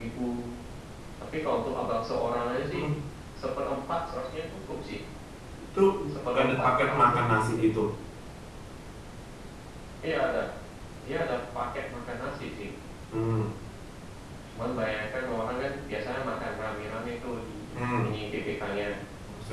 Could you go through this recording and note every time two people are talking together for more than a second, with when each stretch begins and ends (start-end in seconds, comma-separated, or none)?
6.3-7.6